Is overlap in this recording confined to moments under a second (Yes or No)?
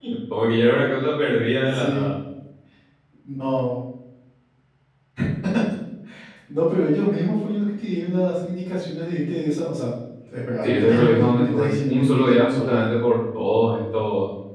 No